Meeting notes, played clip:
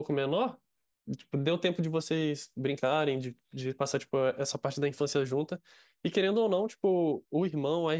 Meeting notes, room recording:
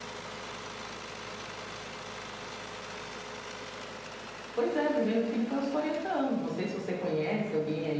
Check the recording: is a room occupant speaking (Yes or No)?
Yes